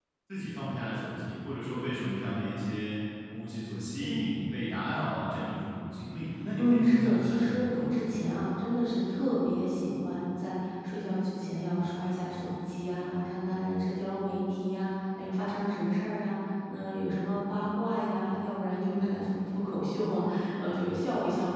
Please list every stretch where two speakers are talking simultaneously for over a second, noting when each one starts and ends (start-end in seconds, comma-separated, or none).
6.5-8.4